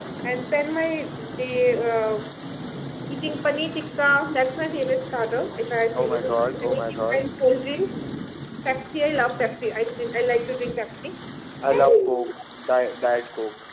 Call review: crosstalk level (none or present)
present